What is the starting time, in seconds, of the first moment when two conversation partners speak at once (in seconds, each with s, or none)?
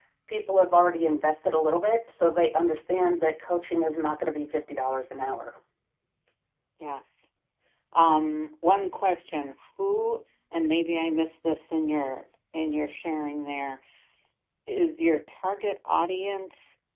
none